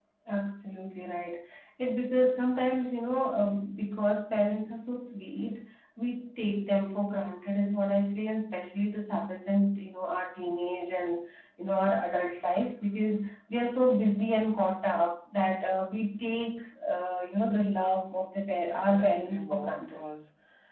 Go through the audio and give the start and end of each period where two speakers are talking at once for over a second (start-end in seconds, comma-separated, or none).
18.7-20.0